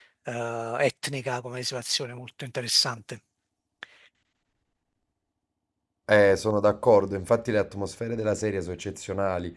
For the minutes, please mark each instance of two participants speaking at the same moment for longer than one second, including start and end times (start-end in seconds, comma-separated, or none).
none